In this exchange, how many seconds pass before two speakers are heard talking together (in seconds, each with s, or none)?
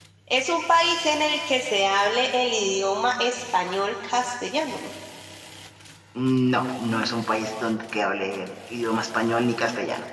none